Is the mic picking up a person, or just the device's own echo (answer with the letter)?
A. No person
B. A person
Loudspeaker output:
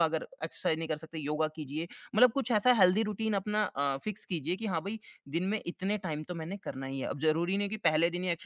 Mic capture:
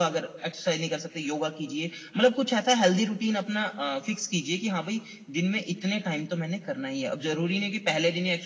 A